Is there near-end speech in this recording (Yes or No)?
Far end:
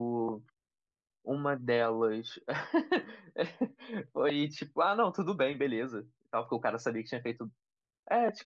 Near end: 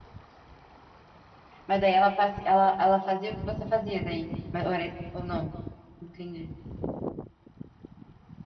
Yes